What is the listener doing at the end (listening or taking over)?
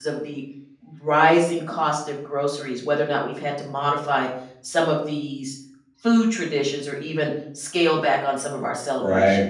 taking over